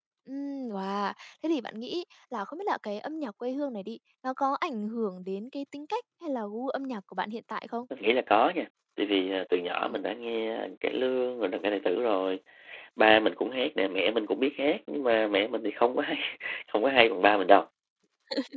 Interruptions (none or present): none